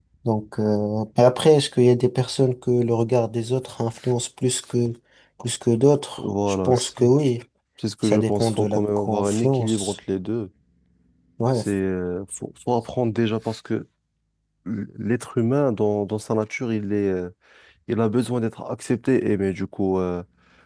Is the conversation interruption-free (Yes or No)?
No